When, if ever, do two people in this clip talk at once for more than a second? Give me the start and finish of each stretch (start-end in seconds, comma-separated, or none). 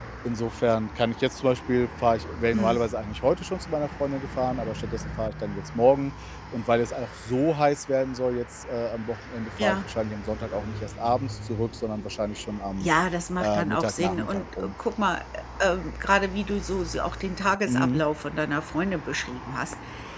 13.4-14.7